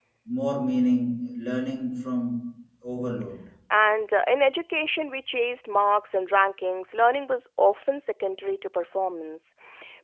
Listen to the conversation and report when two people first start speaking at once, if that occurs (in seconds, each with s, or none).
none